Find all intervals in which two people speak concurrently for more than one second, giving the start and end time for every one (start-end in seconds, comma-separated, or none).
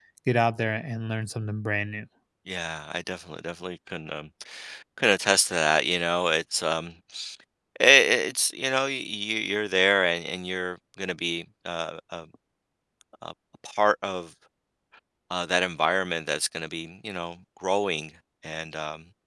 none